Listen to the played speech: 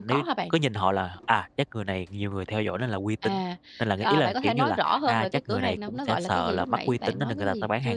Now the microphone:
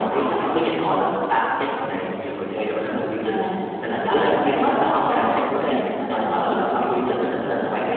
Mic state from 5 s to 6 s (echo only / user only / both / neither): echo only